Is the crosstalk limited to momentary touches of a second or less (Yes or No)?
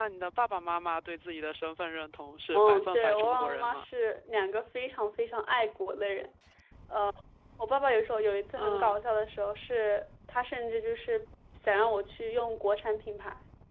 No